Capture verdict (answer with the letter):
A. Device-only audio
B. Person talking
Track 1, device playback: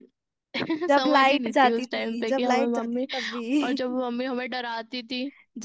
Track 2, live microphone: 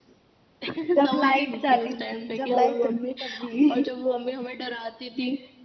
A